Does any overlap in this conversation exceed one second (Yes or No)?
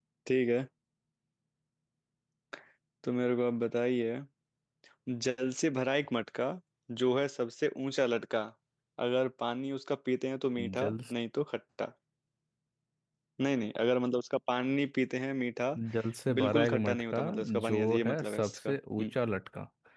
Yes